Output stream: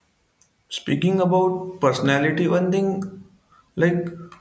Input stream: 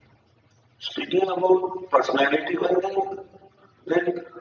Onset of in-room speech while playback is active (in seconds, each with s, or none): none